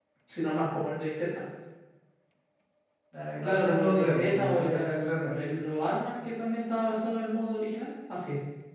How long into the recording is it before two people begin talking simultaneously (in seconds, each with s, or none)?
3.4 s